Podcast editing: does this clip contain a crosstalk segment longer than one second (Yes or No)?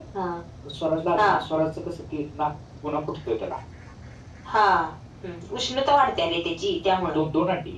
No